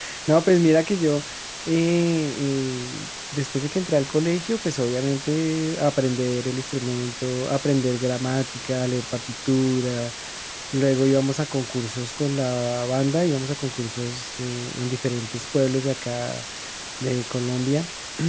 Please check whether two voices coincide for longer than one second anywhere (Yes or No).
No